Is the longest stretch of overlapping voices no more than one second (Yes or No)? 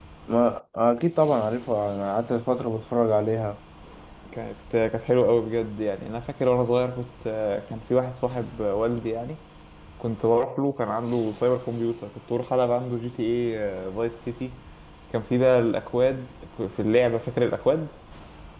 Yes